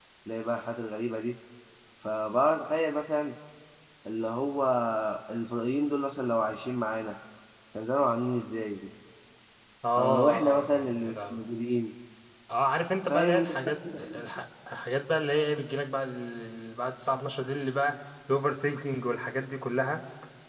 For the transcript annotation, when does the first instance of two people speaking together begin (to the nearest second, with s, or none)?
10 s